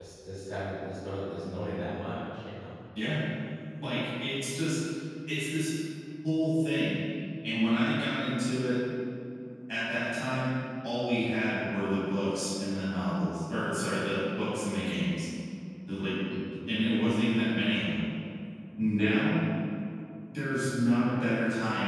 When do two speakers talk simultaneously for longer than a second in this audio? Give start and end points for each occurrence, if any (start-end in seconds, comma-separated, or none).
none